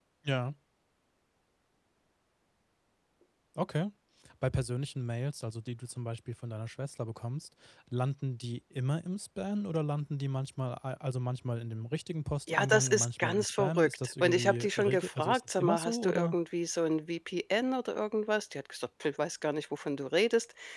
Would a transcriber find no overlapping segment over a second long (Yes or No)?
No